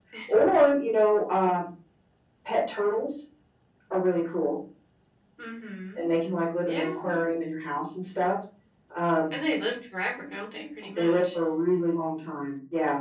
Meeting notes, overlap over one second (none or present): none